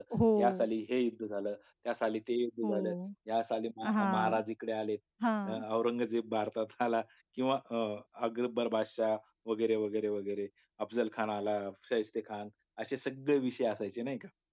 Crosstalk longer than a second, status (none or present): none